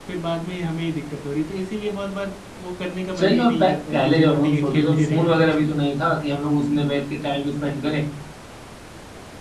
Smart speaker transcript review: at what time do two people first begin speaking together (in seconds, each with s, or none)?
3.2 s